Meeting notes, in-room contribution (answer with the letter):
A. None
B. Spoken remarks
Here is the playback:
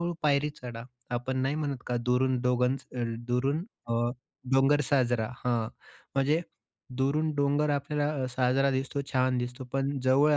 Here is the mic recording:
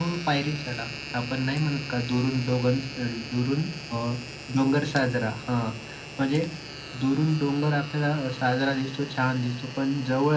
A